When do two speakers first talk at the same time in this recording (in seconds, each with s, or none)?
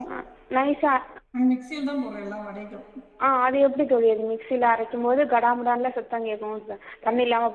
none